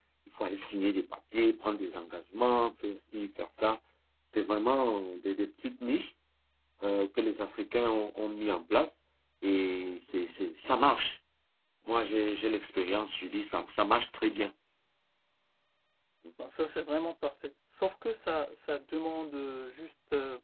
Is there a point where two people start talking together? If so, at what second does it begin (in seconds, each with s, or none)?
none